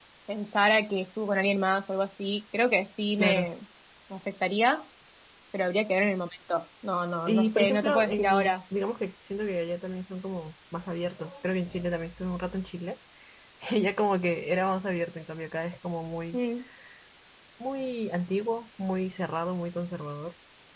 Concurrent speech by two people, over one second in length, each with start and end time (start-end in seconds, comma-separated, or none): 7.3-8.5